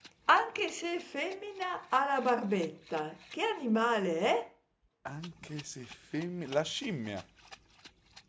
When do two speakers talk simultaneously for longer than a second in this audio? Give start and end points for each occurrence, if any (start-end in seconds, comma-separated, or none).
none